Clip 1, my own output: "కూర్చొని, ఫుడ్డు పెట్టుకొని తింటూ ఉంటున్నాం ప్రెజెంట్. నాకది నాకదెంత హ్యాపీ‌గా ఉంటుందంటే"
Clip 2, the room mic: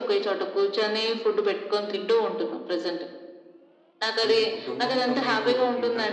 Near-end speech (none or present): present